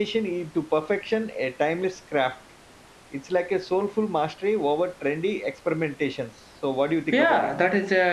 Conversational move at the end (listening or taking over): taking over